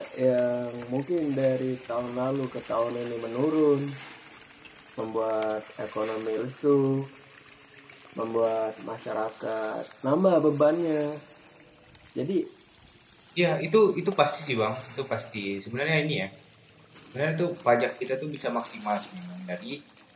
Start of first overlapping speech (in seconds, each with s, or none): none